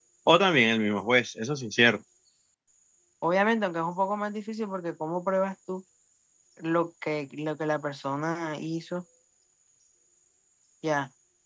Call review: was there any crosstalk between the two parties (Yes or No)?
No